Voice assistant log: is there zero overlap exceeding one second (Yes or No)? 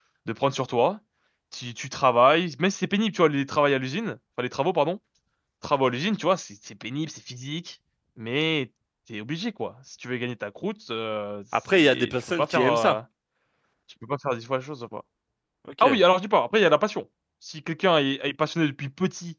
No